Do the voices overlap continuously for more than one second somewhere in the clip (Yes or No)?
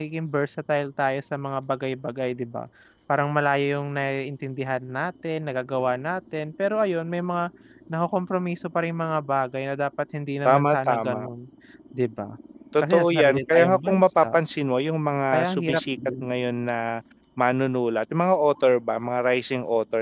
Yes